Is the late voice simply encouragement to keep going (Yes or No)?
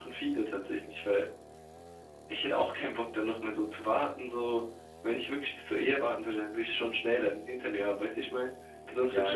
No